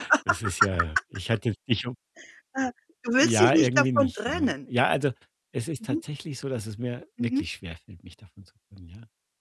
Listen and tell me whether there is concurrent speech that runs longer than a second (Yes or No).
Yes